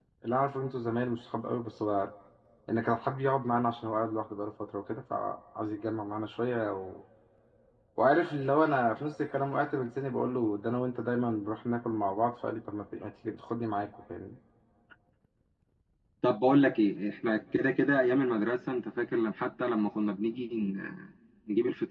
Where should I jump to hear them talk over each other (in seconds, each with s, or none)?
none